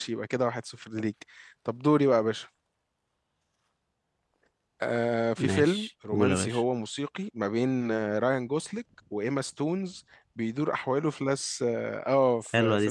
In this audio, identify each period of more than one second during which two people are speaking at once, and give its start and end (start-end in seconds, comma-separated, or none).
5.4-6.6